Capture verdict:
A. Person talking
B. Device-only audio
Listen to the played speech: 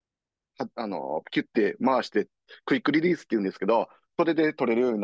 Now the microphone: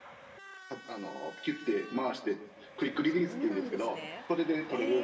A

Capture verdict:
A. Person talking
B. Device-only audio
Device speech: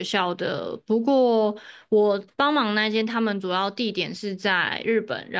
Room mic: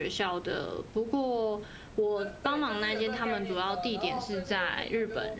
A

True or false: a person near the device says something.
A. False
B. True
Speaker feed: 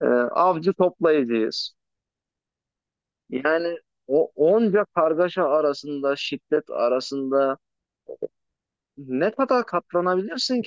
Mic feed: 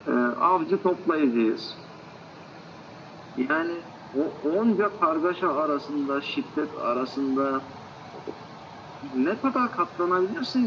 A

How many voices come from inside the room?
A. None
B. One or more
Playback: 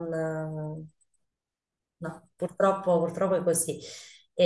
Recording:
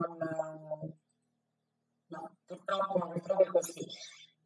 A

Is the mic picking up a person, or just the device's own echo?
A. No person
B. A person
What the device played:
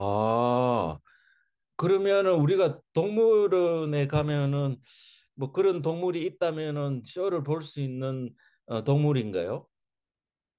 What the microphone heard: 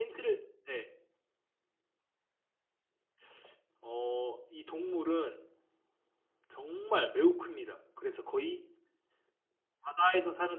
B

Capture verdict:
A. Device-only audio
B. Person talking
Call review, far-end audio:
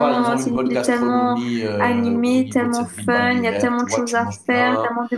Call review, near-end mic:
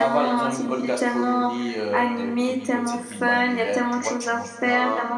A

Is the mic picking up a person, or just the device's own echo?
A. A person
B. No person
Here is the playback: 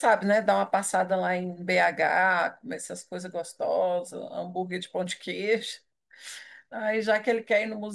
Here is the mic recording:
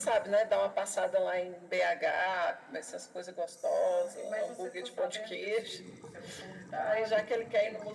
A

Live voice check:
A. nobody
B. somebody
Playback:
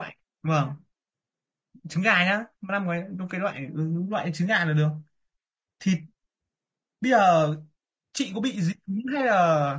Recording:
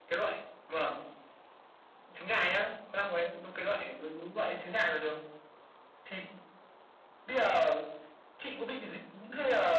A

